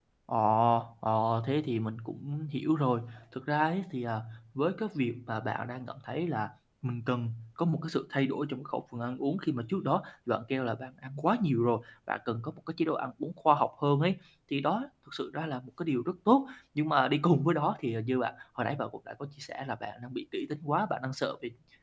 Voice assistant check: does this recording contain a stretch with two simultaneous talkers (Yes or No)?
No